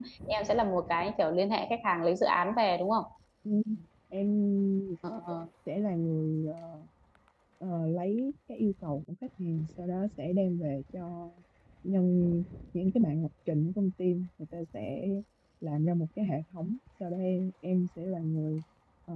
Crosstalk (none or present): none